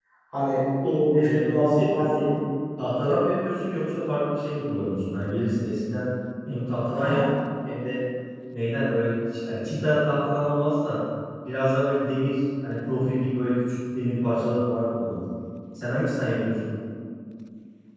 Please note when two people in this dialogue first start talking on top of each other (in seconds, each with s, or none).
0.8 s